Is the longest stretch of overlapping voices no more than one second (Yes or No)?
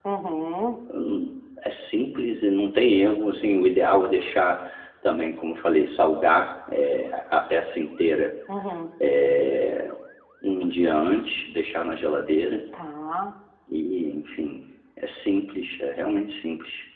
Yes